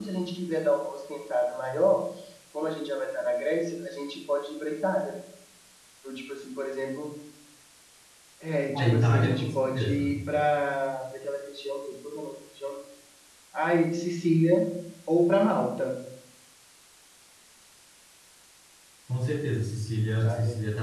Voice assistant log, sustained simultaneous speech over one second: present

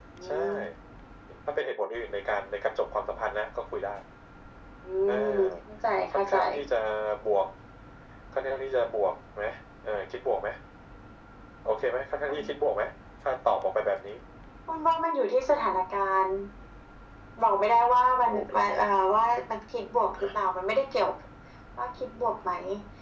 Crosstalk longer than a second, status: none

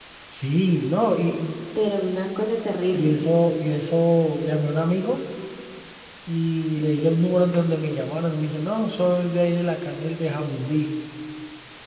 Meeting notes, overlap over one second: none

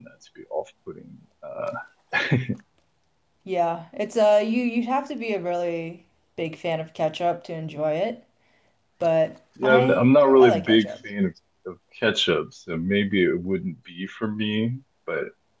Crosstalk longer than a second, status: present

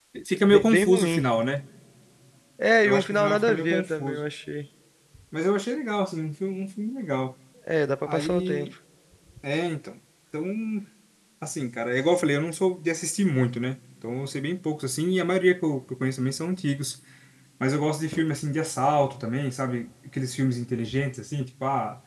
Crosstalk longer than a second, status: present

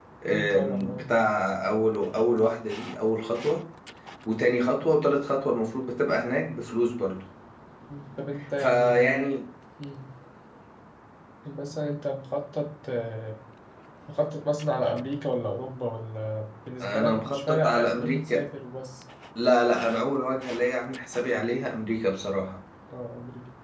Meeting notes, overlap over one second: present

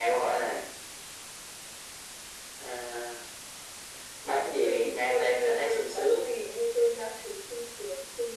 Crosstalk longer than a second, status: present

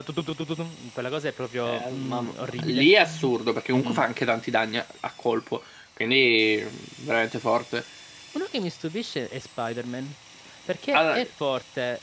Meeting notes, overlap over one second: present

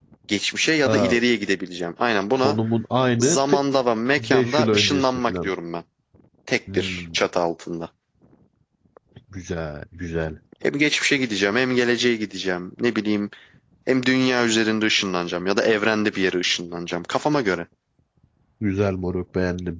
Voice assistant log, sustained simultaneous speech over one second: present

